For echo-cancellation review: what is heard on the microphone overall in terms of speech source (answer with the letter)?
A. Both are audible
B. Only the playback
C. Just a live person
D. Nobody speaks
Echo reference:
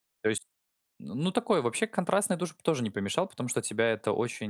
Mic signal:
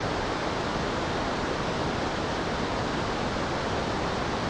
D